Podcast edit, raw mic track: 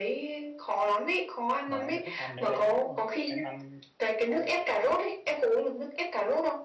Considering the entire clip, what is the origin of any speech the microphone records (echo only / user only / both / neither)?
both